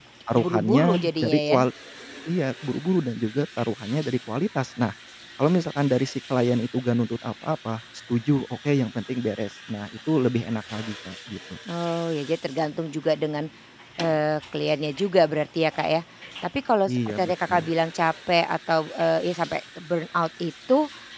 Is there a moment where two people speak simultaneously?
Yes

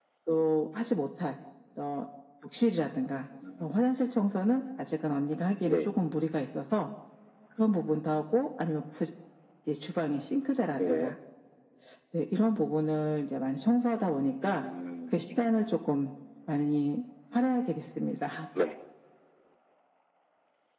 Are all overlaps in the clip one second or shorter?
Yes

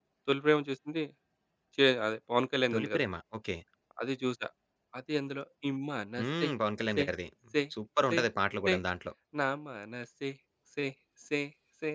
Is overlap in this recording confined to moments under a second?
Yes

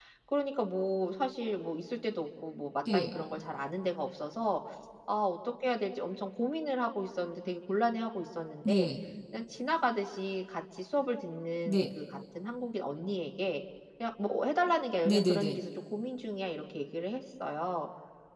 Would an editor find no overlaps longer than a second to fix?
Yes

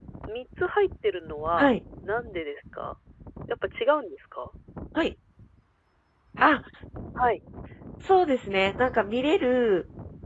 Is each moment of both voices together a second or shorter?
Yes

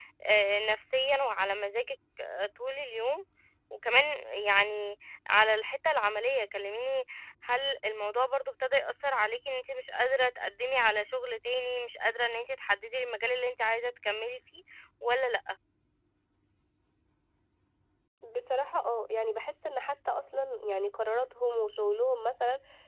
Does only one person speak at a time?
Yes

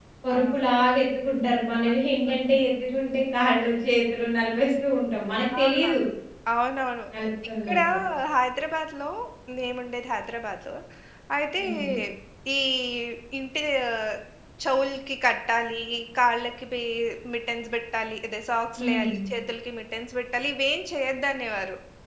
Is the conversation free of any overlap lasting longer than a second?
Yes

